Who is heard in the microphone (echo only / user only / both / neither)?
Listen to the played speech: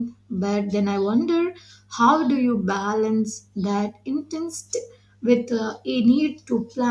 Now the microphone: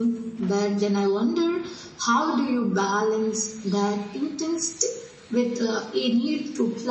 echo only